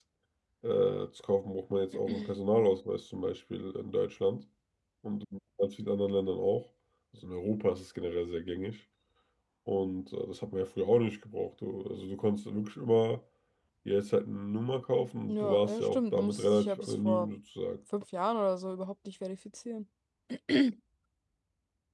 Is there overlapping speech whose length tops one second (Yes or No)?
Yes